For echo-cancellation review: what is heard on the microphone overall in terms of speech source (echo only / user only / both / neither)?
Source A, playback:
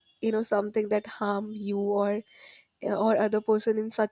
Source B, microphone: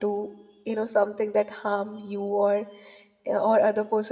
echo only